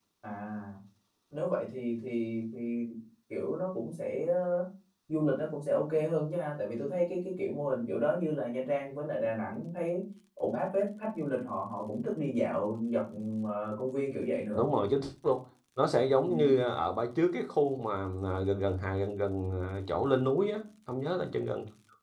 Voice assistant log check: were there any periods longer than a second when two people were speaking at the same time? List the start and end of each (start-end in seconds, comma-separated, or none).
none